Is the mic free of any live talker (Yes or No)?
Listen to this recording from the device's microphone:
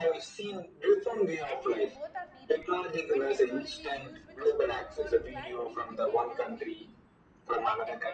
No